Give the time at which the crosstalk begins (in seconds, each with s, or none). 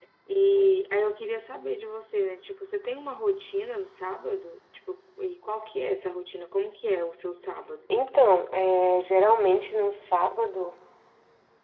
none